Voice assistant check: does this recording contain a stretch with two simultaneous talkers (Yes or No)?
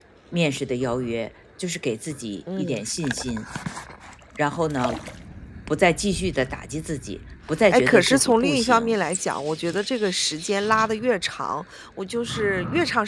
Yes